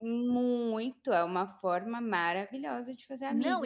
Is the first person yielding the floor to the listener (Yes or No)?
Yes